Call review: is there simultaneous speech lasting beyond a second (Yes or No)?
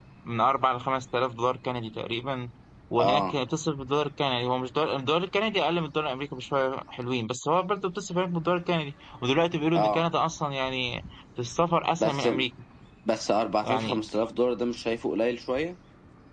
No